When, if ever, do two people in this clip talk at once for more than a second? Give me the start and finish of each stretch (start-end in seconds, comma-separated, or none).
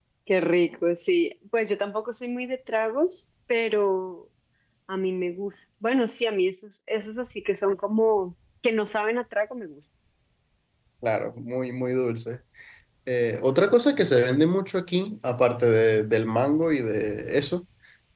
none